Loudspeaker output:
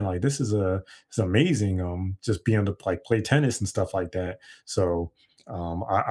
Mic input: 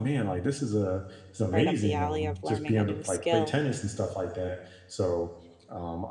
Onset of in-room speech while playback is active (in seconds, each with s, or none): 1.5 s